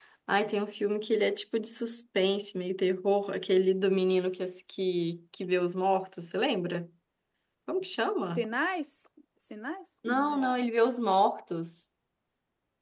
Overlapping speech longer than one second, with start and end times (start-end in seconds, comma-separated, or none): none